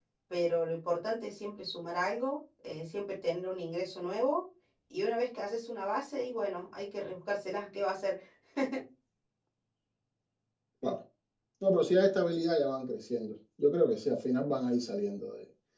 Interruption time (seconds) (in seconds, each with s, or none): none